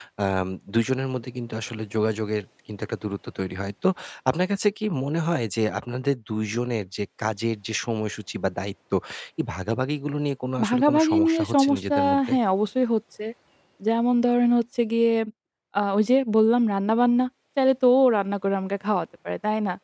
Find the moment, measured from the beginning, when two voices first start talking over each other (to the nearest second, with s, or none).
11 s